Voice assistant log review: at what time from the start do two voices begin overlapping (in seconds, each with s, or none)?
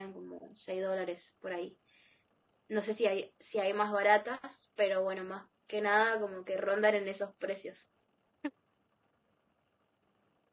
none